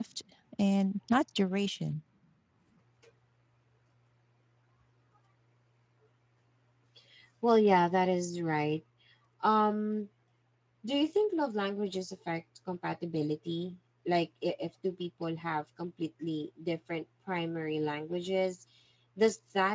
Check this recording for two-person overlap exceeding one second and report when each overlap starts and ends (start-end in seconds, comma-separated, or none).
none